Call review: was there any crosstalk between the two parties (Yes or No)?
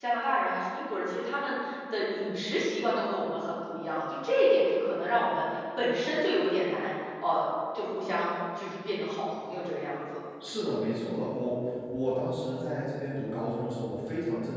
No